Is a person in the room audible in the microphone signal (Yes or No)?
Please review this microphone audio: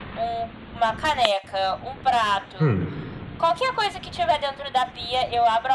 Yes